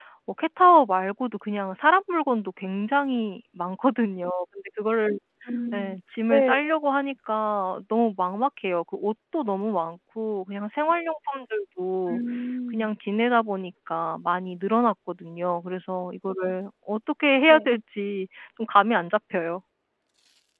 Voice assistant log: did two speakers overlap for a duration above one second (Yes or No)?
No